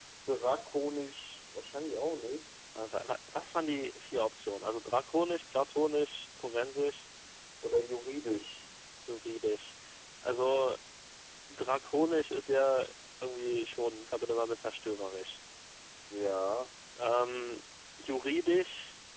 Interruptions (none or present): none